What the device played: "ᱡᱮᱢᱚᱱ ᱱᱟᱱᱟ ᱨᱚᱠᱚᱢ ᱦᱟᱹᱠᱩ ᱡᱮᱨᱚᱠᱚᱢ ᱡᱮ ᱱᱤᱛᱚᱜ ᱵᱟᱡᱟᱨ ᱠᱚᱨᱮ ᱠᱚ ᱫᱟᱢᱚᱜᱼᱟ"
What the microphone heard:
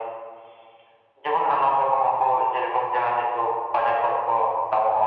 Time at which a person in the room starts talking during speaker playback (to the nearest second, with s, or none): none